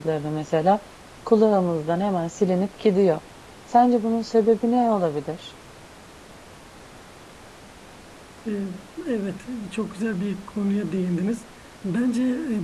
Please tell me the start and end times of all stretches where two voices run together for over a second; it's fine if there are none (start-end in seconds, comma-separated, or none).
none